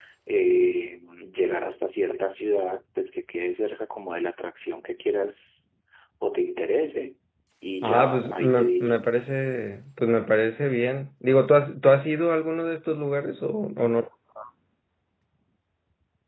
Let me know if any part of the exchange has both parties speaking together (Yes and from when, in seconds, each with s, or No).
Yes, from 7.8 s